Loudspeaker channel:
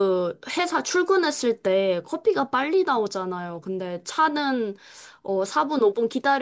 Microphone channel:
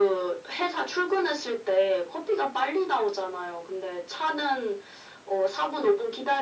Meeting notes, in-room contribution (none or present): none